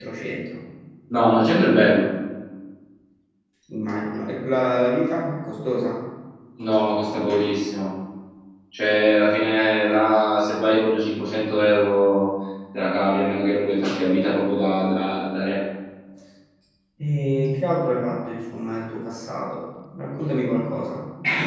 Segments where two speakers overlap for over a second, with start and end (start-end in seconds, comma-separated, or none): none